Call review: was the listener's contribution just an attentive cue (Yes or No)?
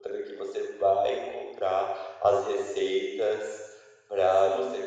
Yes